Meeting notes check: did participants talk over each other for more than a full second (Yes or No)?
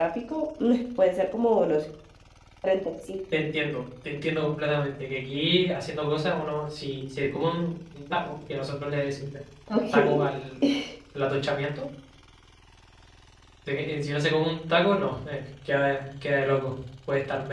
No